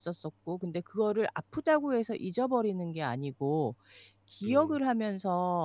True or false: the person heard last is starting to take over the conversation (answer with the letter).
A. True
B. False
B